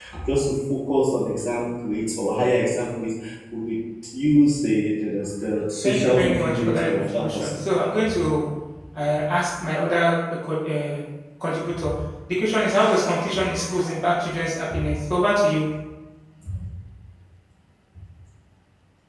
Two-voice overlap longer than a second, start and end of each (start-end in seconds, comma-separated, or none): 5.8-7.6